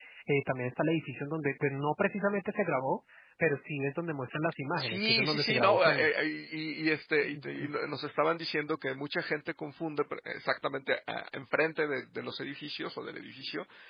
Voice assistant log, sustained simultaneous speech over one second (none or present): present